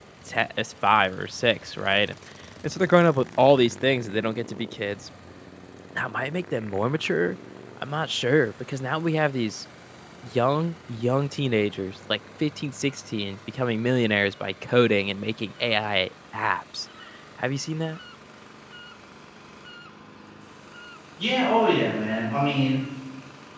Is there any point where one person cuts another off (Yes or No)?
No